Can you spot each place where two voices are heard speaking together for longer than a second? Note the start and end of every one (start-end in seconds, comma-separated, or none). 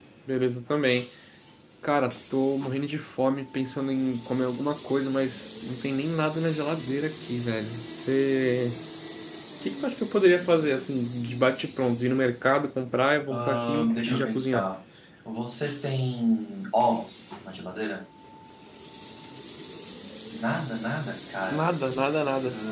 13.3-14.7